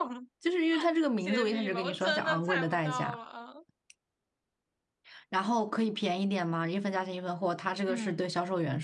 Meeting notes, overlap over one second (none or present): present